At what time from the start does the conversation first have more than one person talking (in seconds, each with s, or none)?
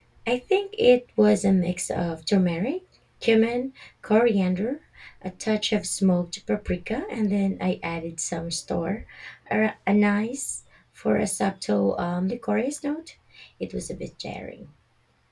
none